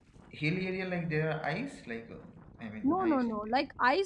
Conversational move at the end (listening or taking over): taking over